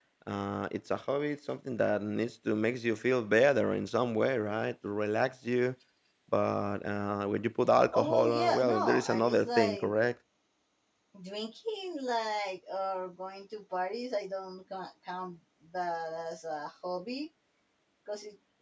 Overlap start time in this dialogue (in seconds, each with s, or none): 7.9 s